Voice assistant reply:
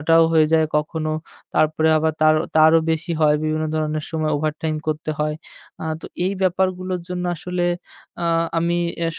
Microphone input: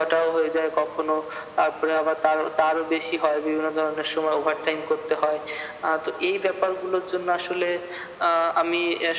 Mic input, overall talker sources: echo only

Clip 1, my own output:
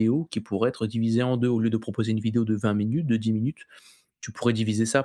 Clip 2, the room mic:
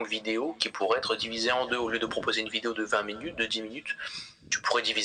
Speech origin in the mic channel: echo only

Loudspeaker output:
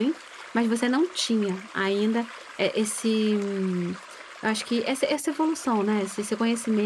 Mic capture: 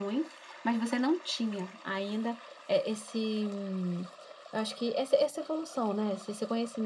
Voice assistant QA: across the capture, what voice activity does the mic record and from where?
echo only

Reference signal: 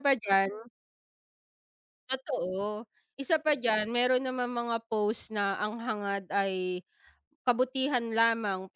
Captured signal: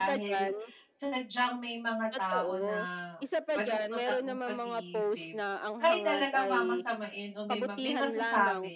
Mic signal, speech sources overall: both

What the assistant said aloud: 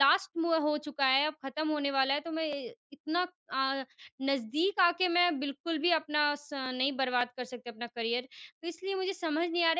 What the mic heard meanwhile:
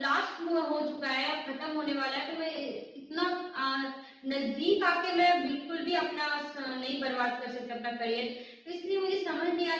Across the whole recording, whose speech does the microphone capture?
echo only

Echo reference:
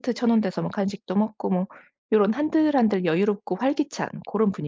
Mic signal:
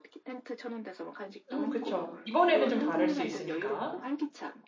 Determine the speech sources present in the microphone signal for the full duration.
both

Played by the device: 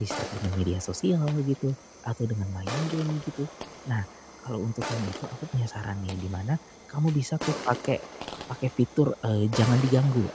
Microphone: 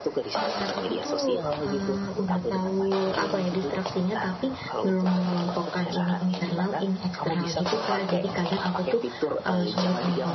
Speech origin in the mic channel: both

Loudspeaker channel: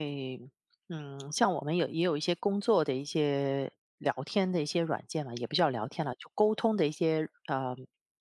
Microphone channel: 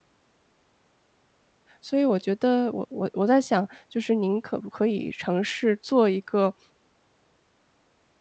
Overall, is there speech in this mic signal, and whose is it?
user only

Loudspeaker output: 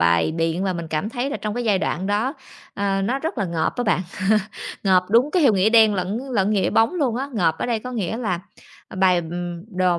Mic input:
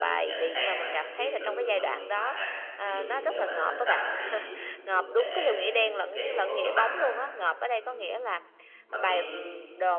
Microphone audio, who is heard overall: both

